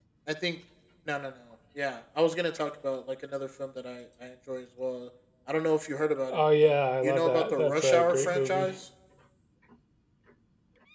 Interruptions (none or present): present